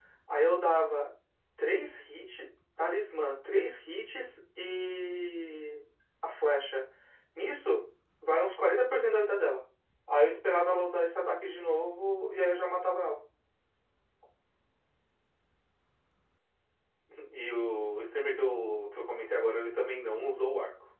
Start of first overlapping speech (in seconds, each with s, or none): none